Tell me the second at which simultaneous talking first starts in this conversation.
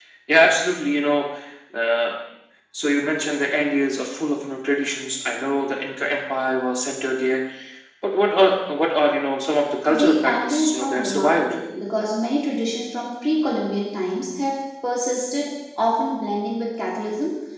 9.9 s

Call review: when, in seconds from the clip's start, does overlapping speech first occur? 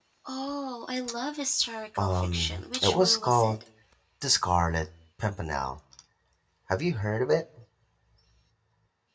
2.0 s

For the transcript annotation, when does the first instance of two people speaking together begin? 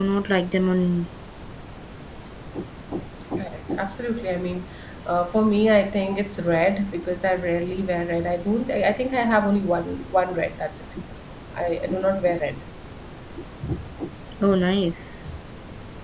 none

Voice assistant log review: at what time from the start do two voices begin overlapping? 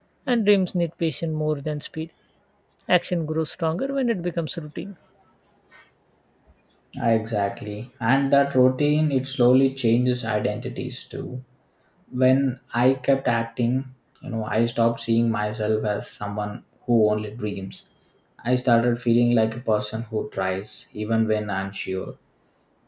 none

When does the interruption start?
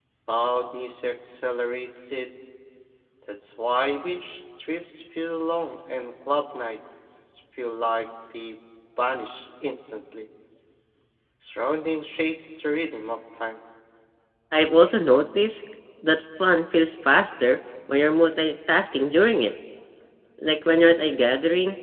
none

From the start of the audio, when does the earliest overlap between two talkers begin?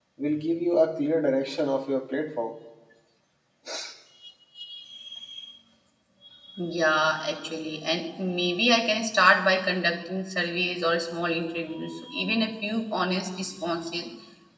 none

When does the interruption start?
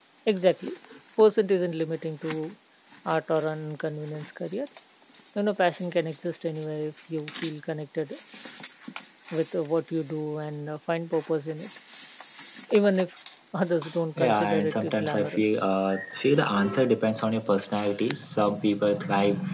14.2 s

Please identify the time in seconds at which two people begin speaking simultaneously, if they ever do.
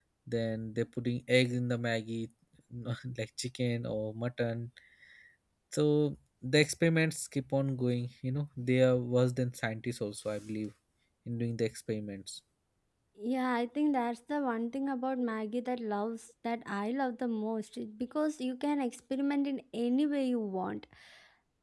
none

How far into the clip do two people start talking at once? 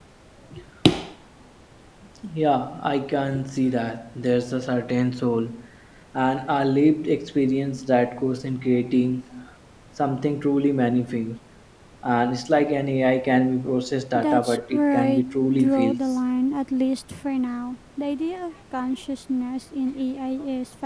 14.1 s

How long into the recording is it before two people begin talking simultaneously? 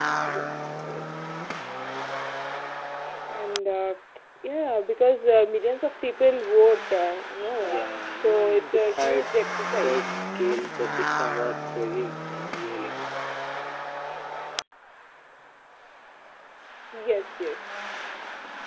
7.6 s

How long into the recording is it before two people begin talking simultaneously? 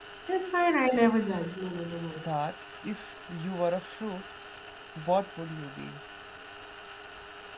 none

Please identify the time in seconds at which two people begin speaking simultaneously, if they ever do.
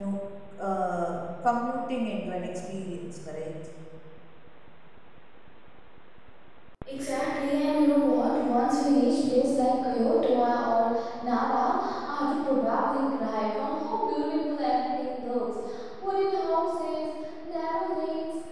none

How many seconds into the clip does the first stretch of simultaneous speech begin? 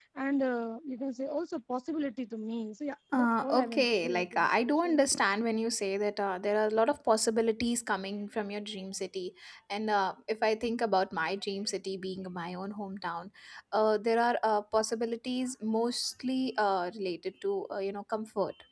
3.1 s

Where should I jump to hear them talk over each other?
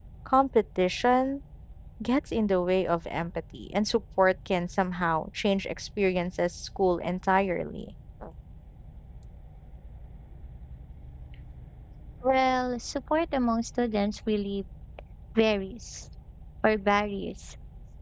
none

